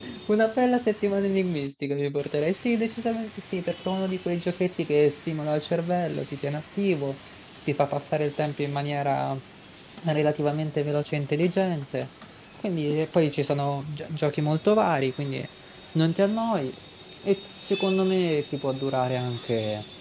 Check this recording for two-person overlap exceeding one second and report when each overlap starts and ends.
none

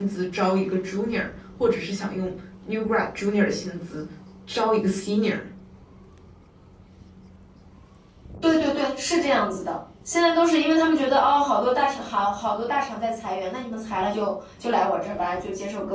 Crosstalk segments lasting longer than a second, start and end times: none

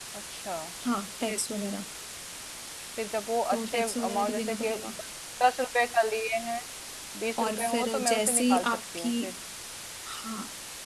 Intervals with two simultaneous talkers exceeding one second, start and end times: 3.5-4.8, 7.4-9.1

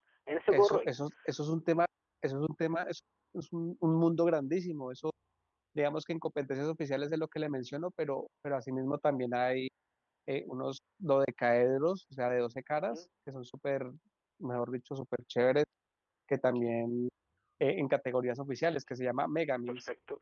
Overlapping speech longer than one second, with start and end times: none

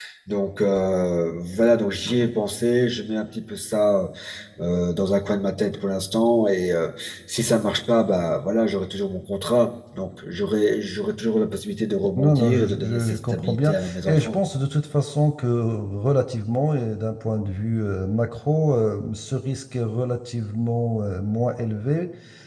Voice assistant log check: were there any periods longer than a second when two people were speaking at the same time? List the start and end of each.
12.2-14.4

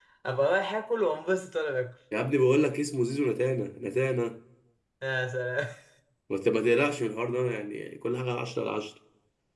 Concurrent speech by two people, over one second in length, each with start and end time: none

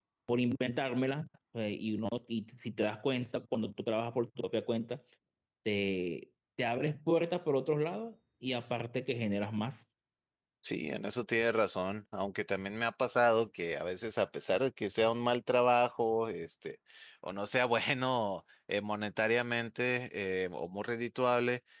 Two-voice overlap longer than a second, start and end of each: none

